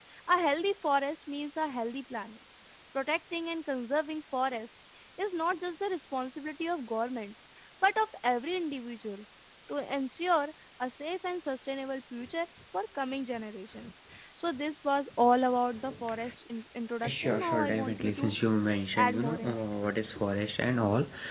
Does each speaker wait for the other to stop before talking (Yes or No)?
No